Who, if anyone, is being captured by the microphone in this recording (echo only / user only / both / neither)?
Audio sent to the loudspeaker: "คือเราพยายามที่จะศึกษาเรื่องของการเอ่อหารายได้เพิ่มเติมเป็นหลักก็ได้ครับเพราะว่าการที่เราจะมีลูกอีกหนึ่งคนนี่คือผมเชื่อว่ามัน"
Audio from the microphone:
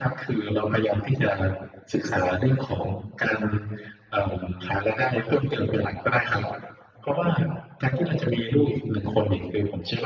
echo only